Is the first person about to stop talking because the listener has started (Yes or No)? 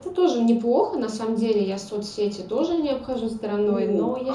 Yes